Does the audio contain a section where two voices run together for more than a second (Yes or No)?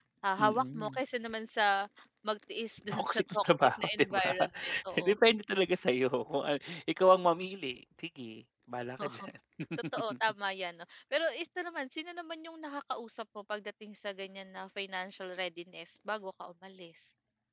Yes